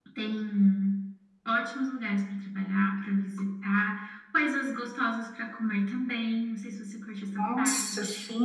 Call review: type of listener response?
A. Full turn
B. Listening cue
A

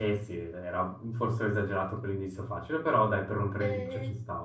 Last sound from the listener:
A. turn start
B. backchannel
A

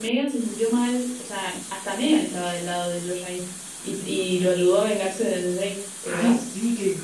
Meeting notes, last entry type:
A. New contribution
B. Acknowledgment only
A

